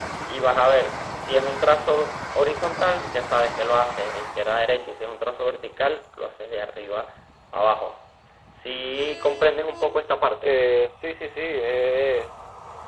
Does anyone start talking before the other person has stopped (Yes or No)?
No